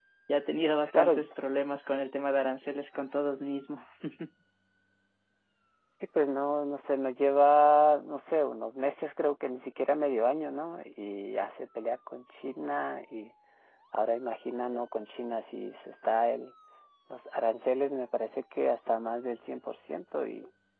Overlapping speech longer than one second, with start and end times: none

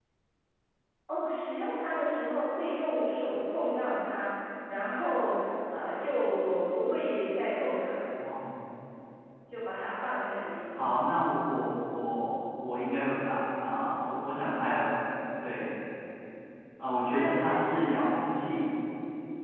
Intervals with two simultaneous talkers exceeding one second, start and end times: none

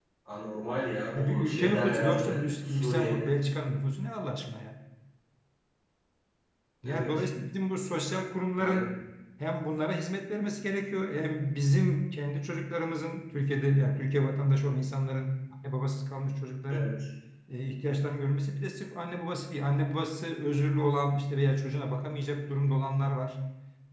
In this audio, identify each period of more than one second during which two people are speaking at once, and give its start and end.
1.1-3.1

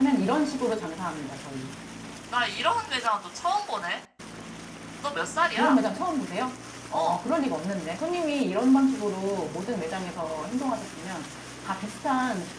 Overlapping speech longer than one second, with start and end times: none

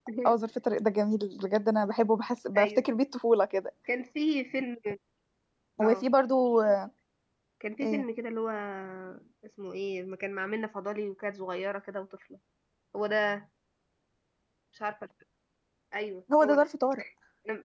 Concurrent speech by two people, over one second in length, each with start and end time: none

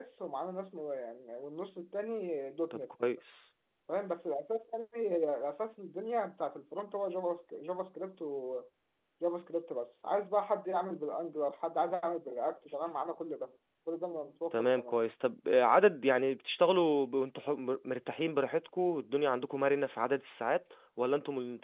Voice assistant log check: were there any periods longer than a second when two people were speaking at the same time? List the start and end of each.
none

